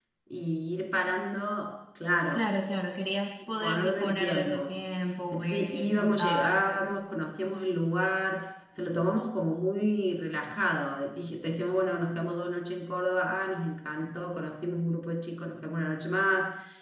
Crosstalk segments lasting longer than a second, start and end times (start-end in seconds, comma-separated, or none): 3.5-4.8, 5.3-6.9